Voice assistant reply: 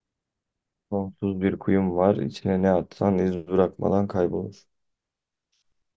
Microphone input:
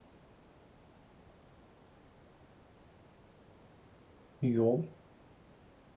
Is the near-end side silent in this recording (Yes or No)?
No